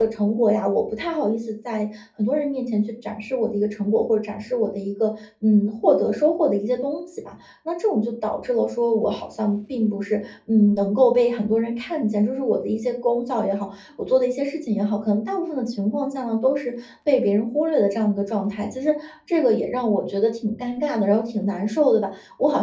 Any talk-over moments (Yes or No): No